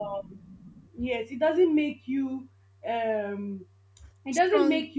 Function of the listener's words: listening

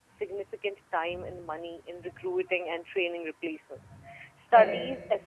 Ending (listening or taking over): listening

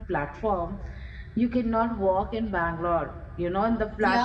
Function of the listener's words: taking over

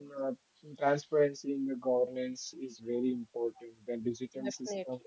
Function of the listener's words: listening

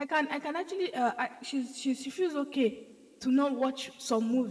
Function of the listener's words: listening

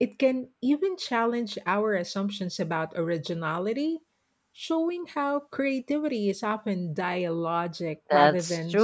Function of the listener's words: taking over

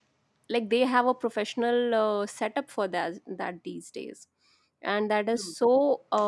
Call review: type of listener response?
listening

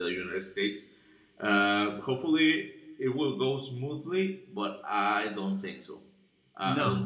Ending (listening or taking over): taking over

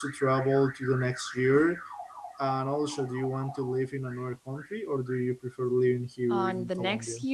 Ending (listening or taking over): taking over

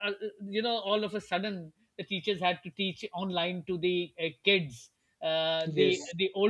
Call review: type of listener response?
listening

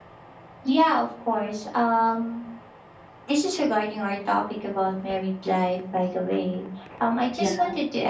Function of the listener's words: listening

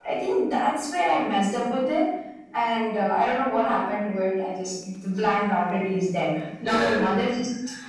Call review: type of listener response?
listening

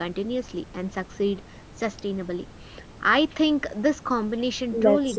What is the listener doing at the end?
listening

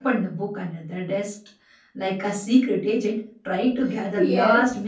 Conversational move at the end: taking over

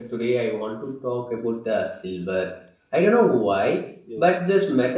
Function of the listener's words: listening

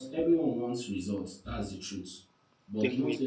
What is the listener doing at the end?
listening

